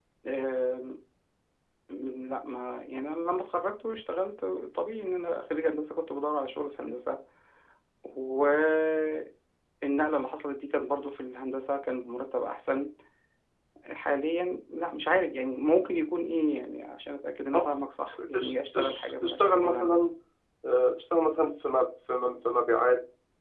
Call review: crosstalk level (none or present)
present